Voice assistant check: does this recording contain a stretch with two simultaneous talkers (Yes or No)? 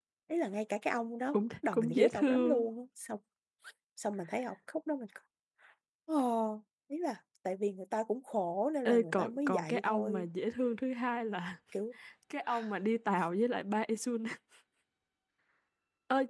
Yes